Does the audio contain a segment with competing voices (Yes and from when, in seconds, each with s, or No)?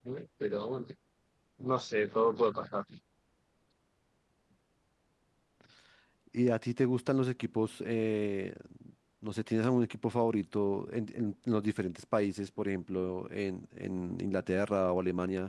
No